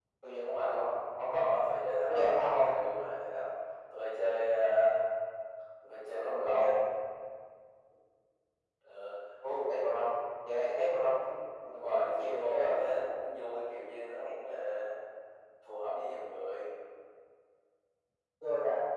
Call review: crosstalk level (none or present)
present